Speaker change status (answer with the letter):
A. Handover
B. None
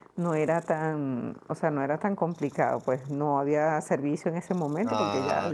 A